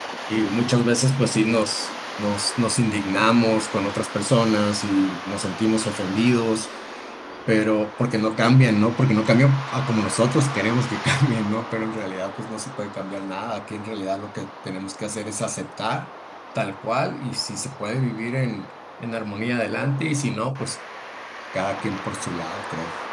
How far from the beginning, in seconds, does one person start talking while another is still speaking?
none

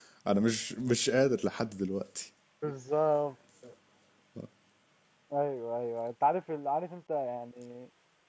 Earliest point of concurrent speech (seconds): none

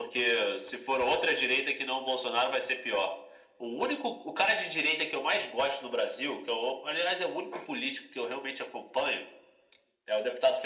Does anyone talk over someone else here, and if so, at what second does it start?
none

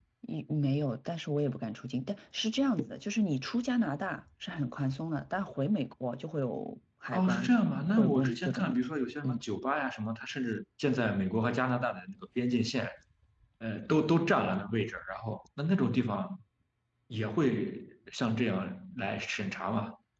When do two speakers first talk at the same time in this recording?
7 s

